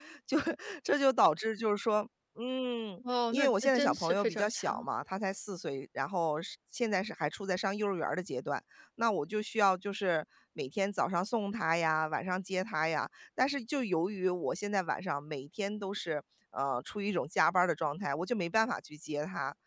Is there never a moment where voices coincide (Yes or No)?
No